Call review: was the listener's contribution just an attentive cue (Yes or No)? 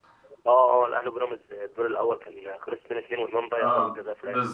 No